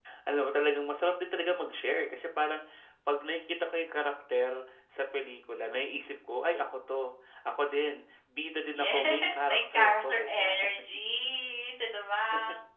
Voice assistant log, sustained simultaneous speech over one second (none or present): present